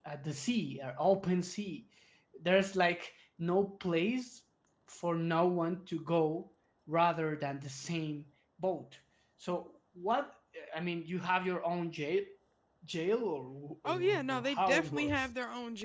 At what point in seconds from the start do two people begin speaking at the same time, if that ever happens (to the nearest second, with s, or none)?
14 s